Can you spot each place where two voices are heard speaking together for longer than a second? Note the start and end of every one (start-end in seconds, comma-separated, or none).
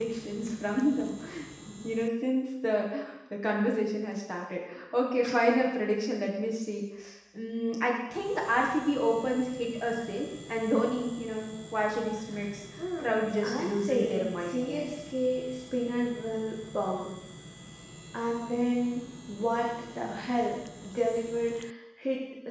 13.0-14.9